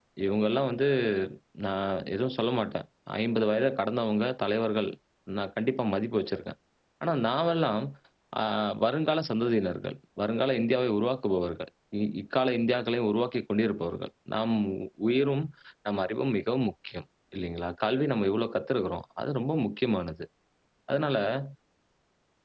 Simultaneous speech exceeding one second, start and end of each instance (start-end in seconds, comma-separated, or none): none